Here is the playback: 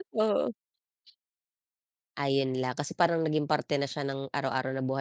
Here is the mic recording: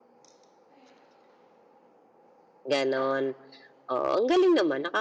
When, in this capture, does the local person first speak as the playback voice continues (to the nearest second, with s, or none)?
3 s